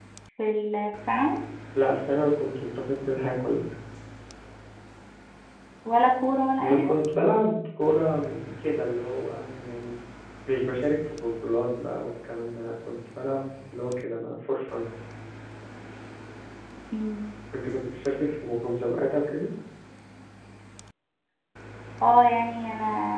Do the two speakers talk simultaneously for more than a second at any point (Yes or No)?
No